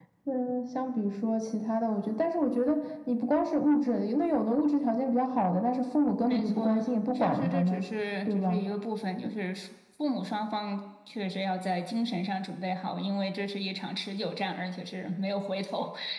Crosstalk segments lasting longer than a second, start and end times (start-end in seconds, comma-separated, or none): 6.3-7.8